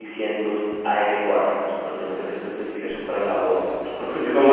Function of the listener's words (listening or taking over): taking over